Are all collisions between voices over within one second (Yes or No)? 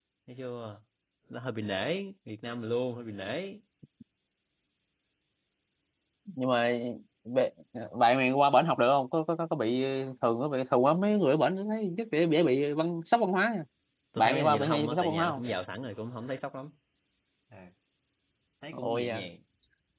No